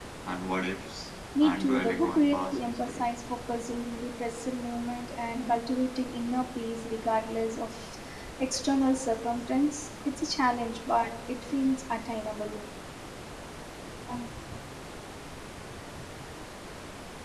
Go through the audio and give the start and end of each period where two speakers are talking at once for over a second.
1.4-3.0

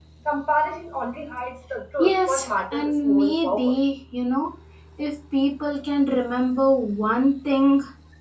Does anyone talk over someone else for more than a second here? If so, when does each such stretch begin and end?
2.0-3.8

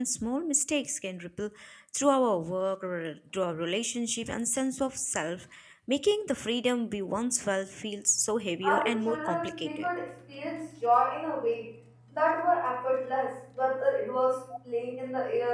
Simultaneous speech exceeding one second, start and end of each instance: 8.6-9.9

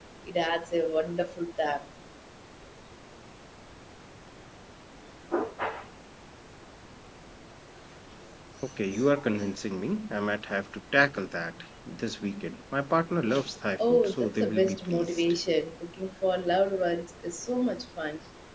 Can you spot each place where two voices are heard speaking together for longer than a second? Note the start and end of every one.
13.9-15.2

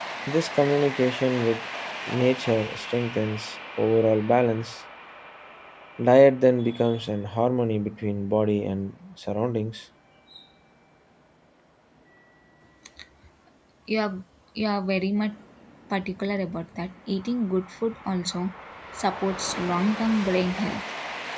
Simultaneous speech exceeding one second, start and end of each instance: none

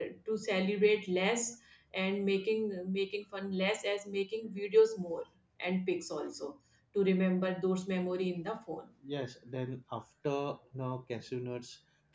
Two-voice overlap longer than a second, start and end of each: none

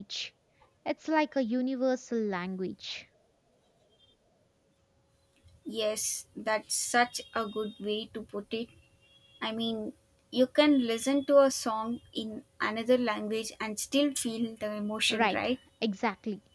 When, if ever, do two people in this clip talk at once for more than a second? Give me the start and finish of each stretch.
none

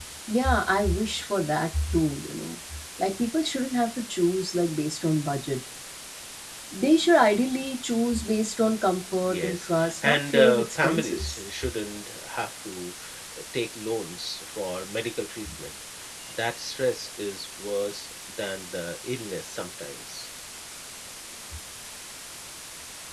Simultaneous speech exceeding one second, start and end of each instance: 9.3-11.4

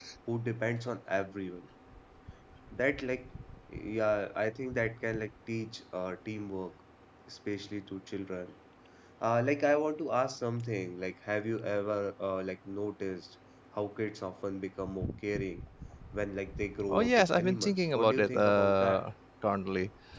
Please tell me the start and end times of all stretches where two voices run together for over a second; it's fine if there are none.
16.9-19.1

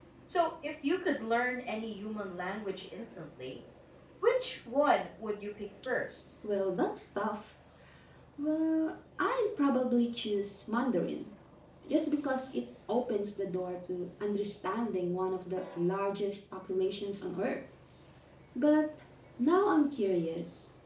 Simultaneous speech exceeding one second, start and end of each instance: none

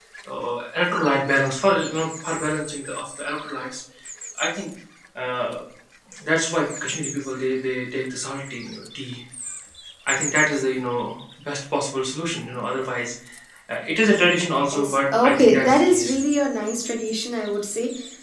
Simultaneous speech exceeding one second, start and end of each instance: 14.7-16.2

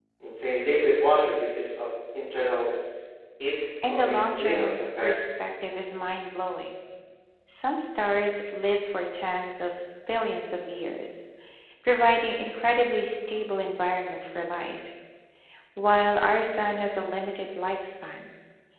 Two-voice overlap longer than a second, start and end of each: 3.9-5.1

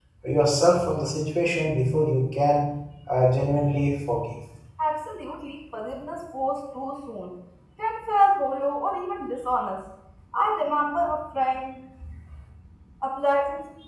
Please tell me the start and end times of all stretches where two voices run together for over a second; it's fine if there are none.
none

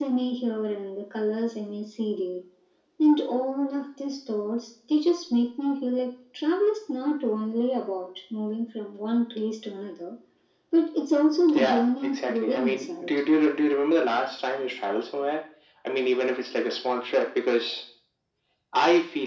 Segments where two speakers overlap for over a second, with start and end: 11.5-13.1

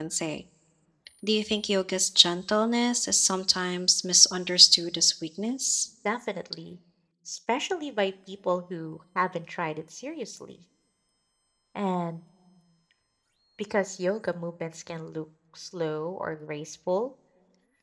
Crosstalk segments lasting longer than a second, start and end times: none

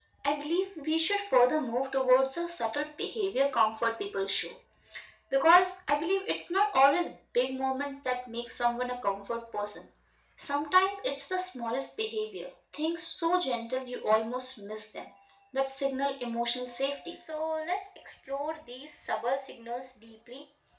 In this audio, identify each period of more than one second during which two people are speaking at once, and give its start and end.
none

